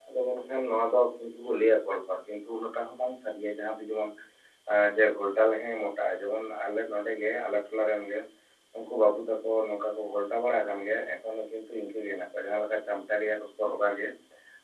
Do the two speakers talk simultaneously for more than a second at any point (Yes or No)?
No